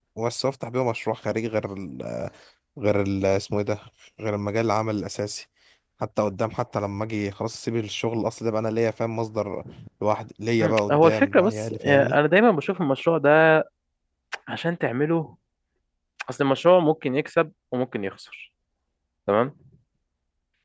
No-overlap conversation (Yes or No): No